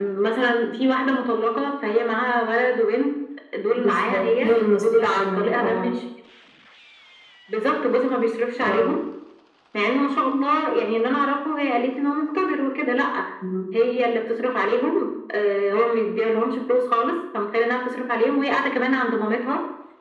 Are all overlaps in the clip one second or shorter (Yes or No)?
No